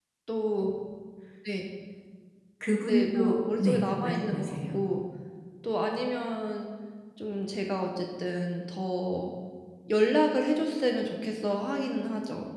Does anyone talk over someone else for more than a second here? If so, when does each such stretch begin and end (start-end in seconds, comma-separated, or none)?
2.9-4.8